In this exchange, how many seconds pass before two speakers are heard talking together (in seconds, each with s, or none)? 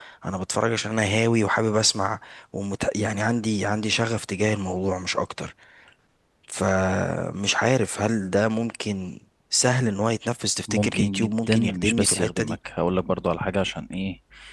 10.7 s